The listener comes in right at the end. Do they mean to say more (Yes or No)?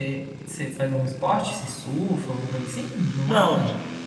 Yes